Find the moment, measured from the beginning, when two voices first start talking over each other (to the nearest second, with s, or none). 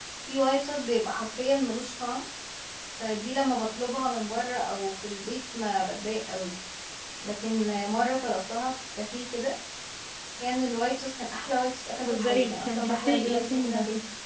12 s